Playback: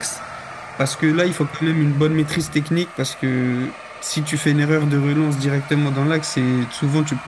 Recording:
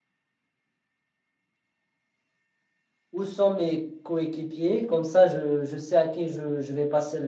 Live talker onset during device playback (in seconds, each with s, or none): 3.1 s